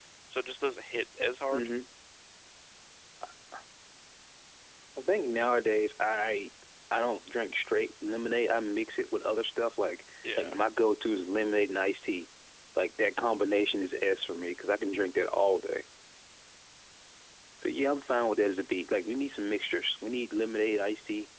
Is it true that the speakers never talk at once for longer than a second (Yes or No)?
Yes